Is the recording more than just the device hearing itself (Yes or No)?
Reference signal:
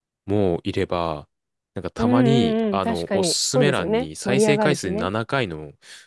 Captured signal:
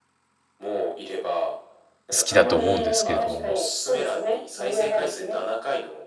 Yes